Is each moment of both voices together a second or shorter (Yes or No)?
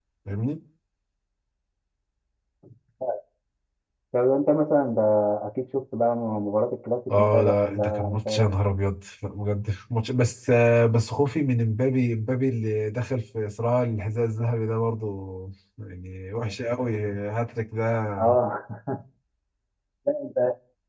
No